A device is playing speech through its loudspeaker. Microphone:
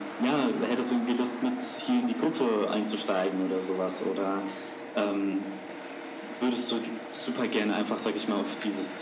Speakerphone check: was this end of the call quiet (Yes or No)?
Yes